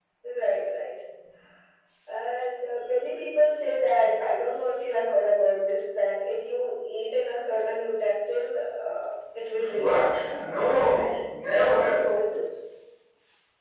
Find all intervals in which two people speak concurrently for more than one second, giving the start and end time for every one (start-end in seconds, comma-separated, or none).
9.7-11.2